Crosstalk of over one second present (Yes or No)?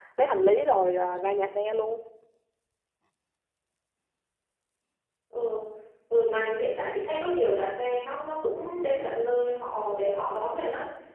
No